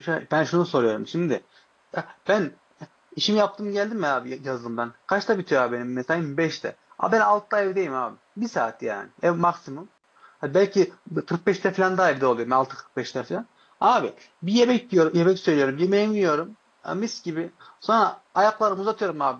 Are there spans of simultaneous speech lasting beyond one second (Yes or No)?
No